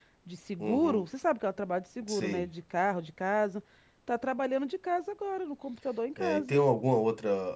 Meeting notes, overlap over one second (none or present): none